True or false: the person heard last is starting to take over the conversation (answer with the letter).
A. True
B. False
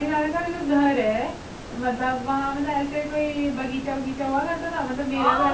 A